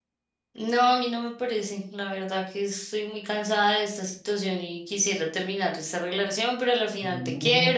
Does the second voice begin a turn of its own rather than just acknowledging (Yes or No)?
No